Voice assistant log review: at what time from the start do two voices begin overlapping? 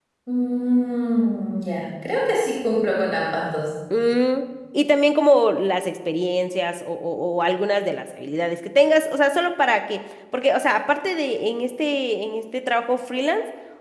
none

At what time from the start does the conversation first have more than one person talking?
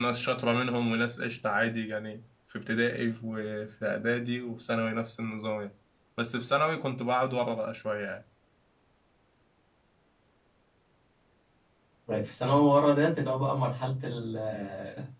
none

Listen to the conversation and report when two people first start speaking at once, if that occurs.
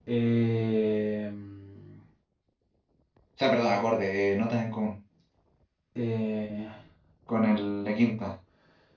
none

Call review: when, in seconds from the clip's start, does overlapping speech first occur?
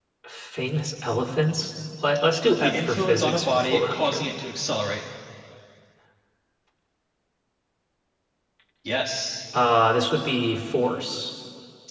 2.6 s

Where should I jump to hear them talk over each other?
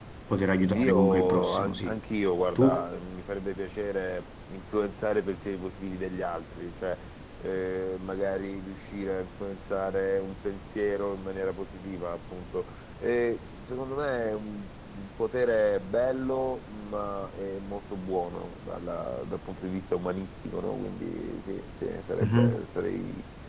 0.6 s

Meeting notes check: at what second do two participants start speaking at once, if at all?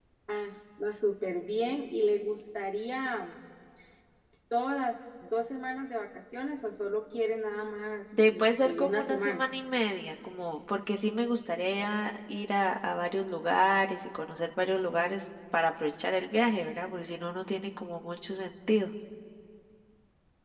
8.1 s

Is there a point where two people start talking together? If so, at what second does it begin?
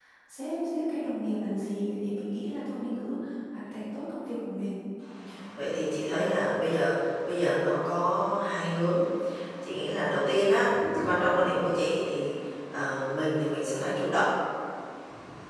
none

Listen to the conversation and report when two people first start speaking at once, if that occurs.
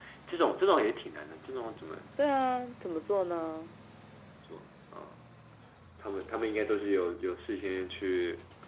none

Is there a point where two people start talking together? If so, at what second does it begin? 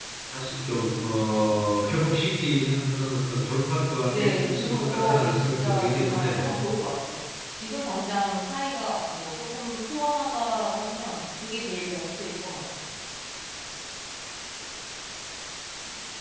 4.1 s

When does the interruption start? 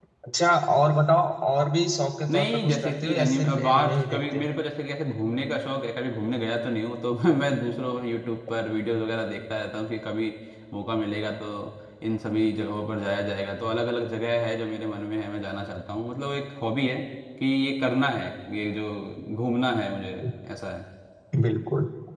2.3 s

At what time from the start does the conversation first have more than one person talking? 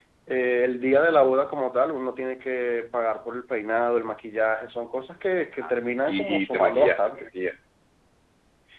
6.1 s

